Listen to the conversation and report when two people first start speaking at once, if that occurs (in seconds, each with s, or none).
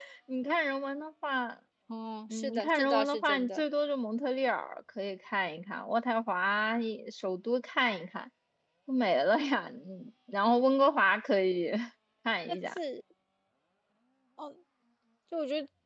2.3 s